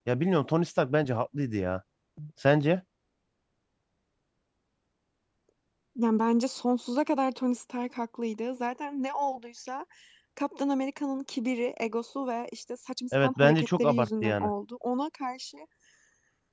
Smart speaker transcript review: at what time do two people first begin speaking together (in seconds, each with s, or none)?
13.1 s